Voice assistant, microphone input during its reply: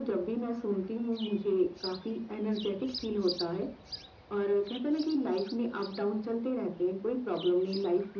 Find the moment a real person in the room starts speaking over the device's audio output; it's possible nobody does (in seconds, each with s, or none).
none